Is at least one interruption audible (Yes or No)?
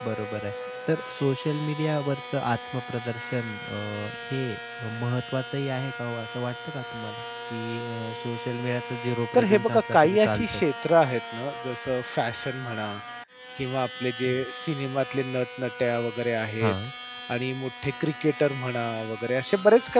Yes